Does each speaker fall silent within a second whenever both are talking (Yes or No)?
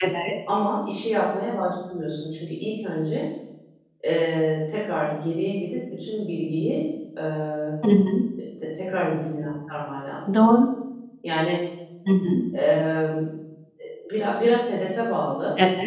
Yes